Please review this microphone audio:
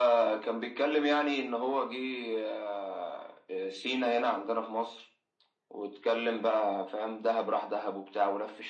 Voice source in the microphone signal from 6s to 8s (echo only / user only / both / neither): echo only